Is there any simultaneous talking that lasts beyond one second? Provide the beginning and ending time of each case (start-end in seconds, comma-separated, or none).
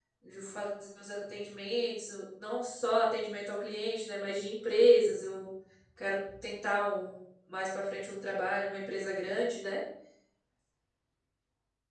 none